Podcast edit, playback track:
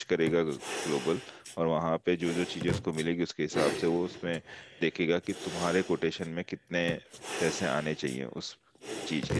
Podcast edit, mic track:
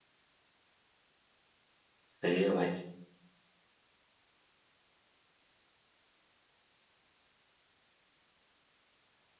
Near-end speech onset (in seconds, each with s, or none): 2.1 s